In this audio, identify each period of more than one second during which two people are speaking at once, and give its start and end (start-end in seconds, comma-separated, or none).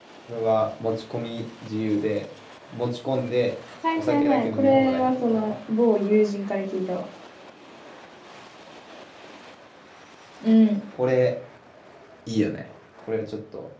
4.0-5.5